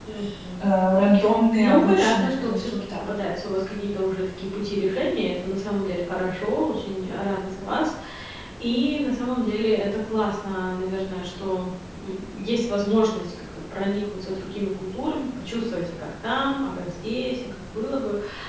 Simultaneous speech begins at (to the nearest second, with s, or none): 2 s